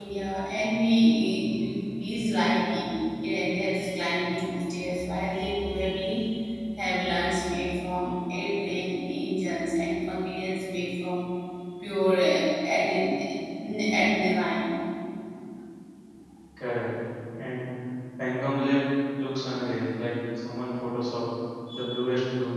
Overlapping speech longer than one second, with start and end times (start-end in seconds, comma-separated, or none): none